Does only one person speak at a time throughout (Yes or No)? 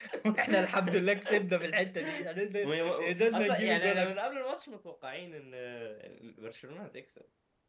No